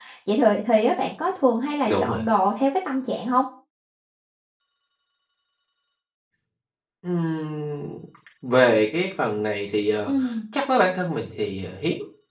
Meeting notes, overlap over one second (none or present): none